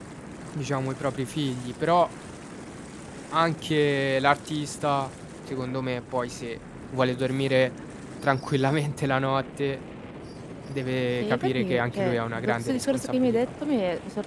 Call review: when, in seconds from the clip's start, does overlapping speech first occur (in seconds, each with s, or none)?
11.2 s